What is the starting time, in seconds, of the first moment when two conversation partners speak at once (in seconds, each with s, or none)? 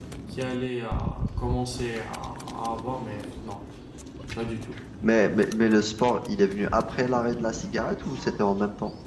none